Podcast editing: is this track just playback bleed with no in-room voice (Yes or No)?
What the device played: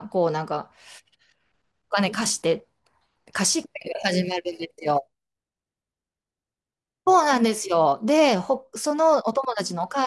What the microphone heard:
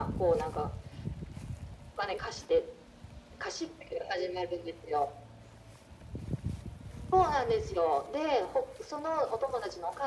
Yes